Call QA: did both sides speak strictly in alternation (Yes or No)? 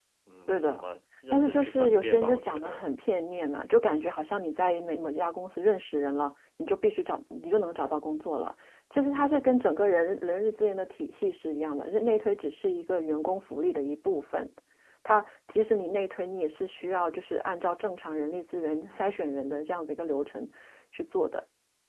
No